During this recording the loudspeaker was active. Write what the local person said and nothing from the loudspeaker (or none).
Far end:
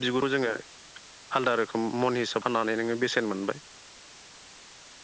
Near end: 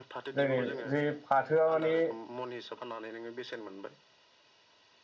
जेरै जे फाथोआ माने